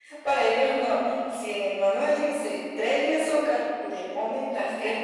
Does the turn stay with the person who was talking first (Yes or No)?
Yes